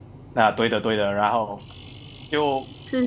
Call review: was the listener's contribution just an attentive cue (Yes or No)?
Yes